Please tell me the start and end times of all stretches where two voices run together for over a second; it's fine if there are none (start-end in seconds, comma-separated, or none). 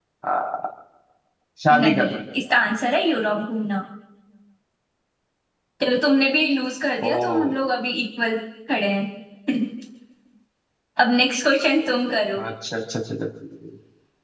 none